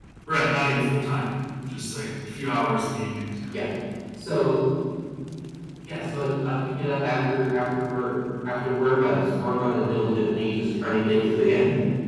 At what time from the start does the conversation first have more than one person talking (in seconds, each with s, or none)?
none